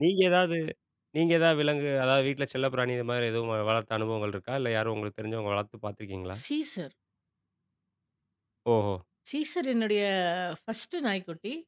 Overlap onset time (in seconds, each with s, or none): none